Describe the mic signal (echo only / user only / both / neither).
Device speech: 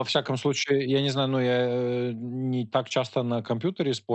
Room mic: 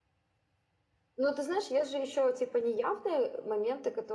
user only